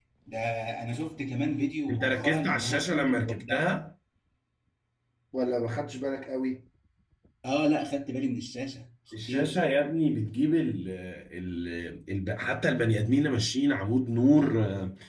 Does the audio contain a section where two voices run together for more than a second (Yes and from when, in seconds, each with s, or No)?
Yes, from 1.9 s